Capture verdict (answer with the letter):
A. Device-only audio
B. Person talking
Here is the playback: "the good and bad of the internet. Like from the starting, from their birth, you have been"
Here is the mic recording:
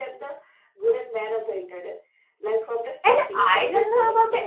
B